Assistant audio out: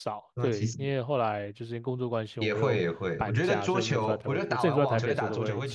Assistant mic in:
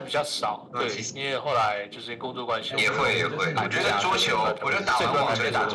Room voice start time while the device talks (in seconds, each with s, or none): 2.7 s